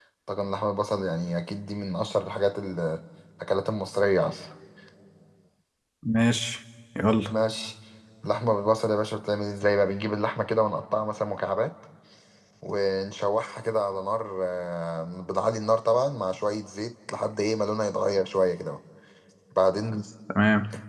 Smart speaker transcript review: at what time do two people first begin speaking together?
none

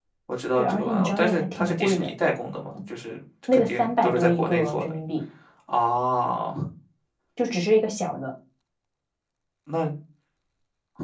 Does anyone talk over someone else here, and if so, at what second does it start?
0.6 s

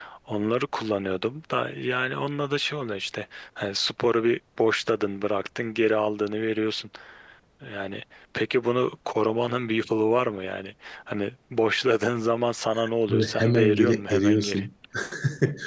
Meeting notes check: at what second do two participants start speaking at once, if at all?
13.1 s

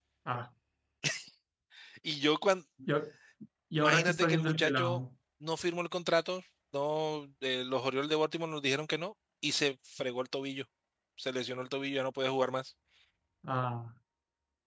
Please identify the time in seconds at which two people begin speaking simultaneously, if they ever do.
3.8 s

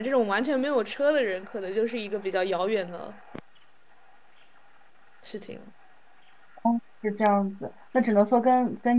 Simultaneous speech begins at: none

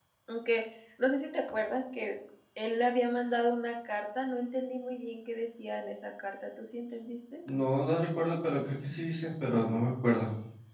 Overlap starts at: none

